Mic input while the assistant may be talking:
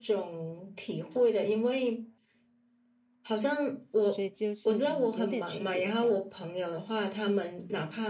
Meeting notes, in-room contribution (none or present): present